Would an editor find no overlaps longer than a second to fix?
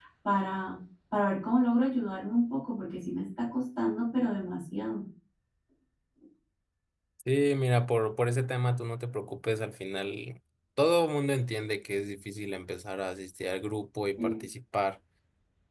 Yes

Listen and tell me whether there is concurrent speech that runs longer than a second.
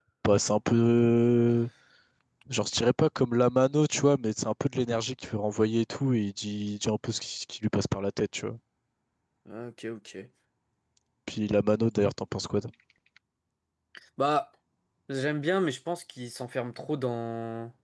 No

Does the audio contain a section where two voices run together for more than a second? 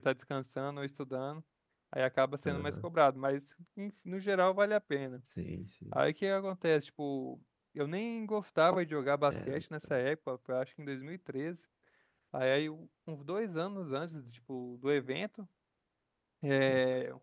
No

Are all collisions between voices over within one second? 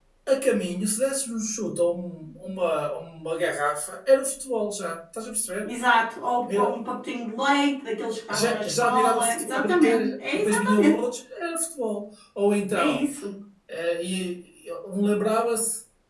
No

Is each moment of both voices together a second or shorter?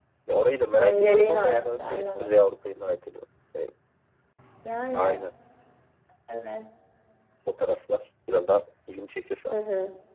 No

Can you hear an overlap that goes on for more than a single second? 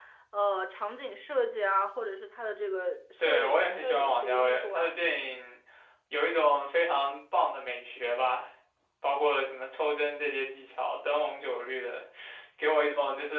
Yes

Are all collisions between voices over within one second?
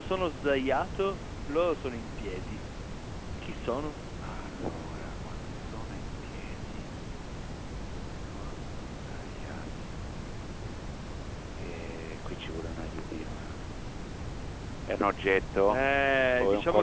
Yes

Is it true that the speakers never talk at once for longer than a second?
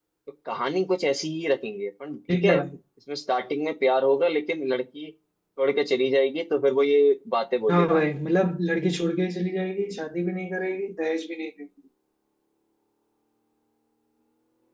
Yes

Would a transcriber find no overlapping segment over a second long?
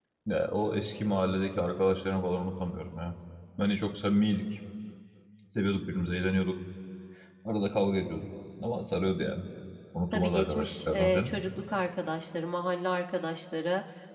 No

